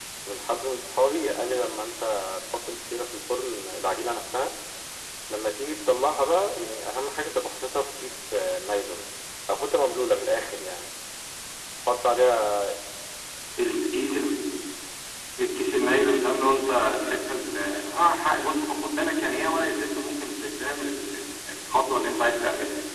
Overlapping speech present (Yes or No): No